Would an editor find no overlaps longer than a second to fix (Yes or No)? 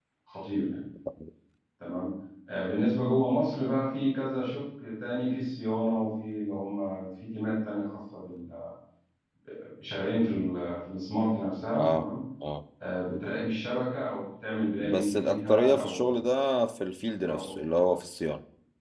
No